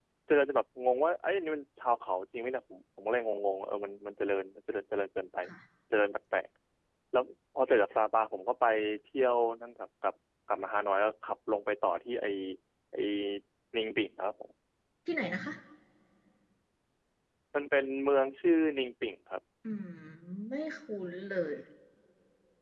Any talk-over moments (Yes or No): No